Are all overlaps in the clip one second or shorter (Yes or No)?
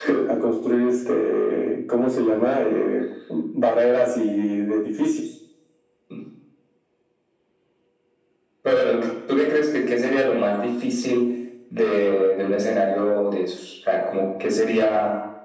Yes